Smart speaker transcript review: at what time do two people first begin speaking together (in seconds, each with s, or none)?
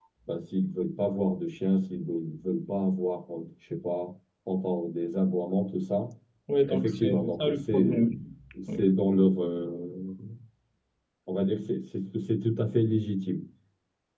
6.7 s